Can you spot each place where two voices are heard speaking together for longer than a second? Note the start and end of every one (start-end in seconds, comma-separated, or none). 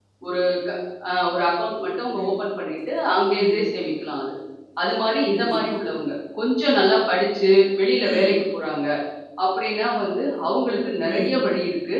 none